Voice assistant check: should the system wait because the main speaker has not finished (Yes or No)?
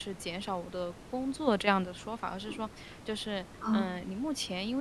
Yes